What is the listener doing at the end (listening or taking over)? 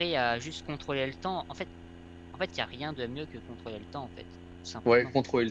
taking over